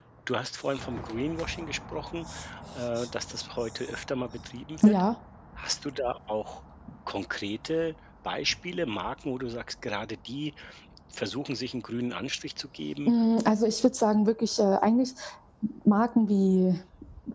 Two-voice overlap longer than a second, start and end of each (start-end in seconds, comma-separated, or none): none